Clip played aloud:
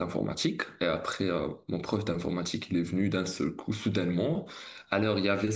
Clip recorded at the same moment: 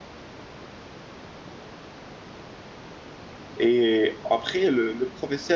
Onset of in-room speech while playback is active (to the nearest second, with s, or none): 4 s